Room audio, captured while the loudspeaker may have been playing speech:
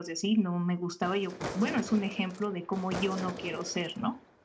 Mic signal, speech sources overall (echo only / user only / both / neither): echo only